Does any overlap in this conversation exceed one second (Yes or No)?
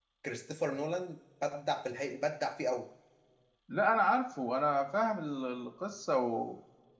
No